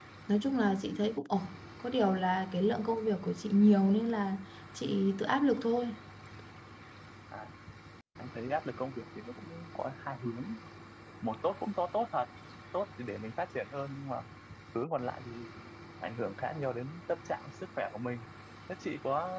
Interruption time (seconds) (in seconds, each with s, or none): none